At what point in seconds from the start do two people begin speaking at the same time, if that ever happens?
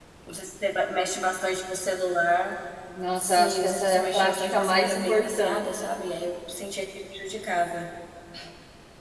3.2 s

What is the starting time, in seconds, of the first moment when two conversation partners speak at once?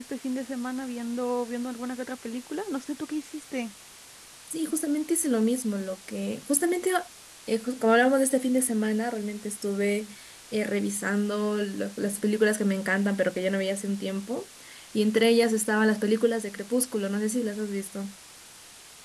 none

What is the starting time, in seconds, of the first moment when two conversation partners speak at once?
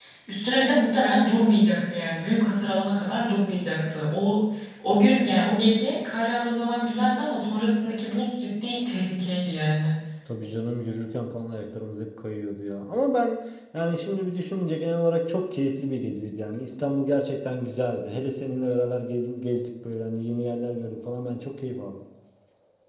none

